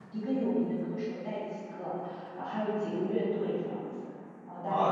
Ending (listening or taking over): taking over